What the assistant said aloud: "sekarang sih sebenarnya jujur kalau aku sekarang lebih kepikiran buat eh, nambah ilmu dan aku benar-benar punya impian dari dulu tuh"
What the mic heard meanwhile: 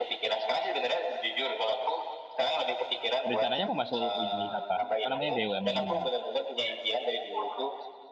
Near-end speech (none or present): present